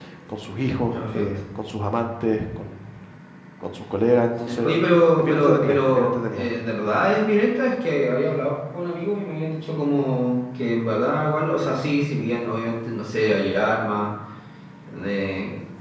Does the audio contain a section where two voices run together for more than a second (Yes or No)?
Yes